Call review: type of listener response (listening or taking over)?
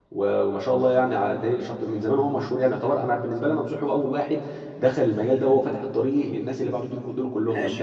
taking over